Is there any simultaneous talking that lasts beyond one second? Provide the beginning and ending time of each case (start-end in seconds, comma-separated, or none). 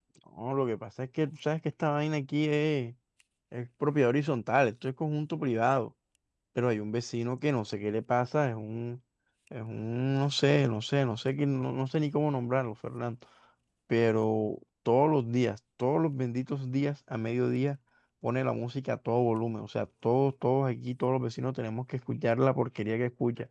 none